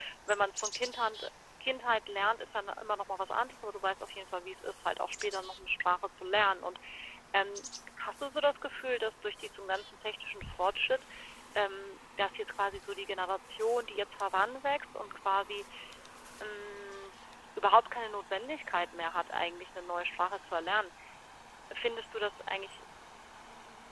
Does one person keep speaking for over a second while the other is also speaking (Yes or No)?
No